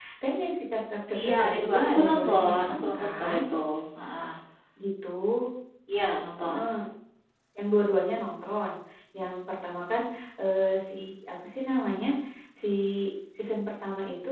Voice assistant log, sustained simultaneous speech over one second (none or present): present